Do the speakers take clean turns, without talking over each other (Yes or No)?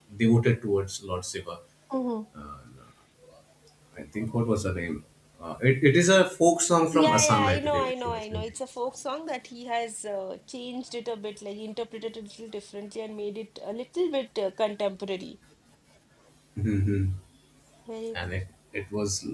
No